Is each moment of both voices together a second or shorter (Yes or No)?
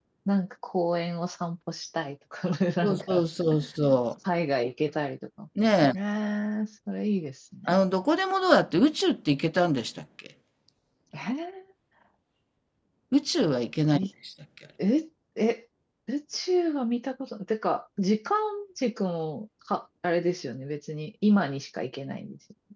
Yes